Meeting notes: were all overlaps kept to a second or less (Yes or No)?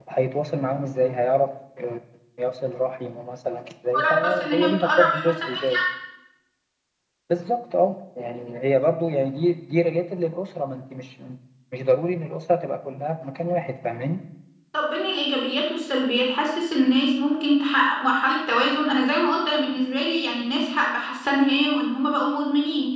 No